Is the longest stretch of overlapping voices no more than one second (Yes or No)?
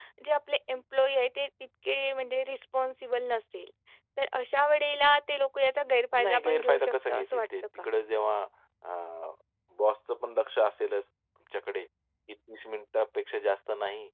No